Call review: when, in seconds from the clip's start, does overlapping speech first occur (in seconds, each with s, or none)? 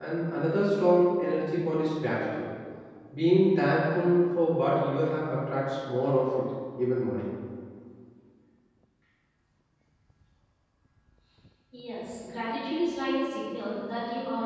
none